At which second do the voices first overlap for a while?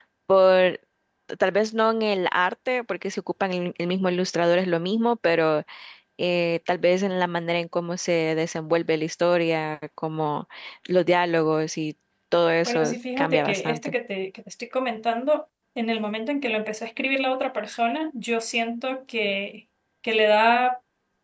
12.6 s

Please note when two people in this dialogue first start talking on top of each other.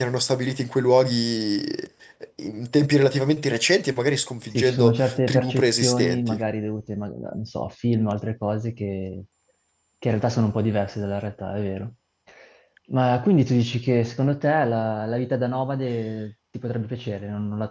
4.5 s

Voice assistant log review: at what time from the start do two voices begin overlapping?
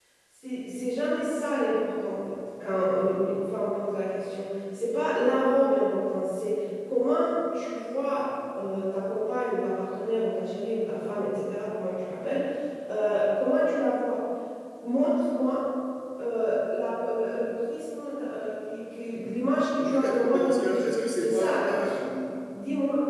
19.8 s

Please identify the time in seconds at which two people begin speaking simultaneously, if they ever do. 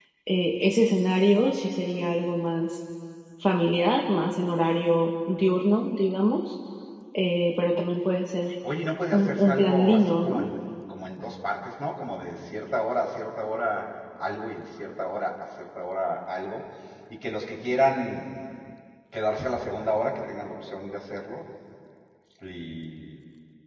9.1 s

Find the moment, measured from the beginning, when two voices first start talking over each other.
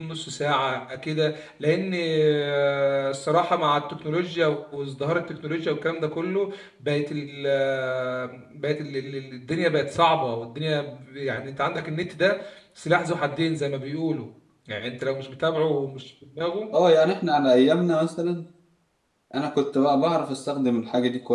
none

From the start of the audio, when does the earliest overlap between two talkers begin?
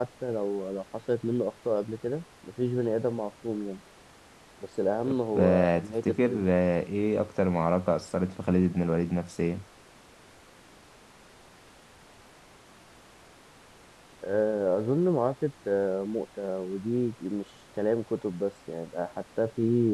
5.0 s

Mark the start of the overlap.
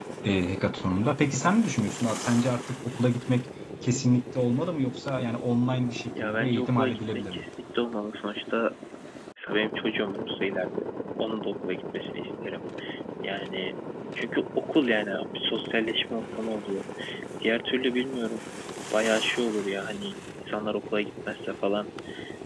6.2 s

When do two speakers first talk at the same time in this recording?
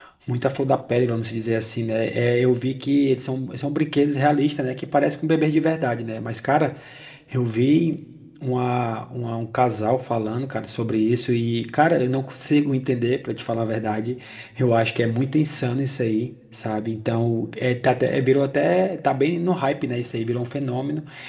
none

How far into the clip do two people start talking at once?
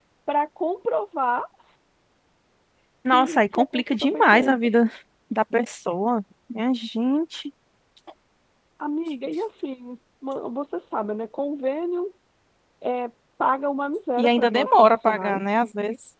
3.1 s

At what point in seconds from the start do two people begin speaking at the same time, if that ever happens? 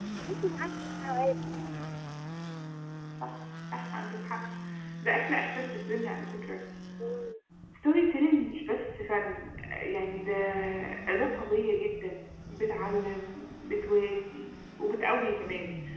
none

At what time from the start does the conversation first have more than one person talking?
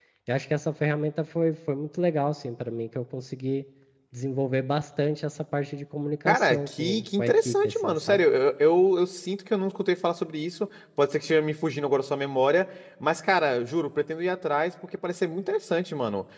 6.3 s

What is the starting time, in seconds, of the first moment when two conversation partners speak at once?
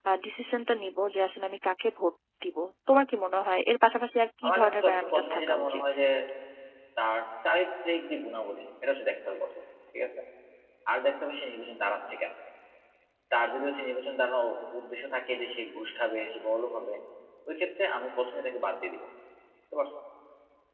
4.4 s

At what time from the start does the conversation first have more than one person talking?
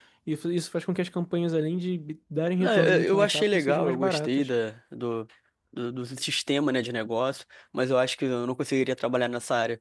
2.6 s

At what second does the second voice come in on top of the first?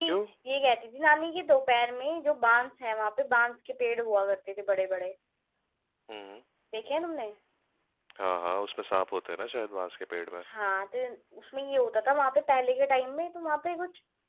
none

